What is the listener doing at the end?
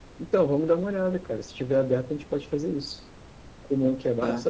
listening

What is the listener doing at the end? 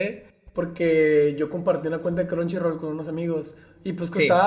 listening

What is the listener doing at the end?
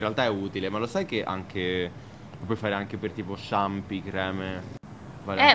taking over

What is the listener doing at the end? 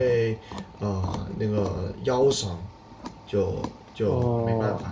listening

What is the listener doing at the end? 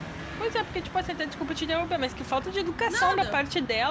listening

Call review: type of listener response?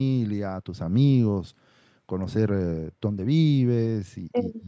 taking over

